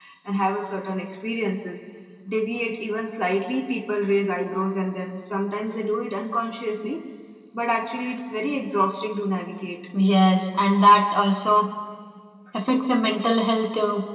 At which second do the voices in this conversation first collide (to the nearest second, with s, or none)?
none